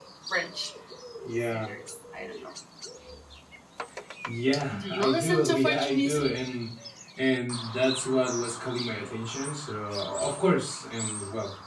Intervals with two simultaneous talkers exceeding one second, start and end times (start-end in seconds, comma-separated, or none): 4.8-6.3